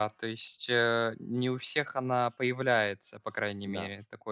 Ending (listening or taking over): taking over